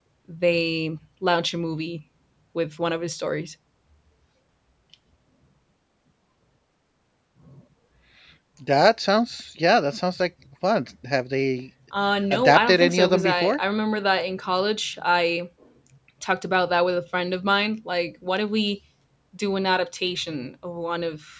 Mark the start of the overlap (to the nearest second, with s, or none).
12 s